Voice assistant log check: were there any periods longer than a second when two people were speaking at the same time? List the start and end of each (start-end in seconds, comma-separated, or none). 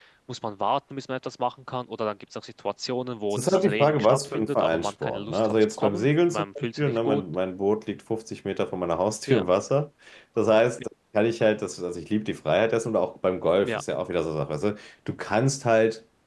3.3-7.2